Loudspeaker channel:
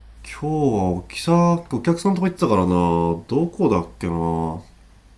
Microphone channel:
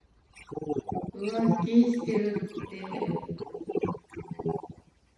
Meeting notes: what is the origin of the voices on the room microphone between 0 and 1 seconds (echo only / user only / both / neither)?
echo only